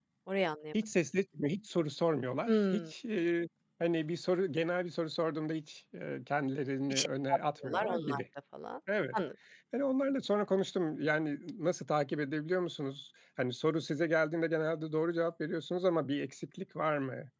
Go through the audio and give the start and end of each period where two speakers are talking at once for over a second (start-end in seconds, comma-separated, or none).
6.9-8.2